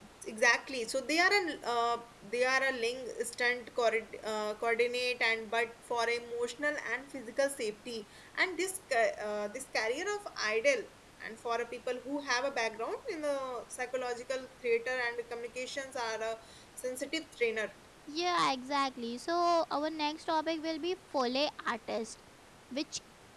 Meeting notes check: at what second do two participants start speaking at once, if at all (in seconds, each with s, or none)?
none